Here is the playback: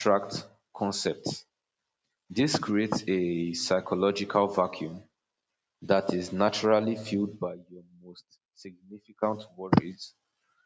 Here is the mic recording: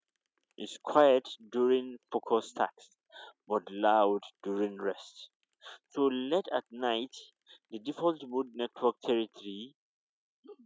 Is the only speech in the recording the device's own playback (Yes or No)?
No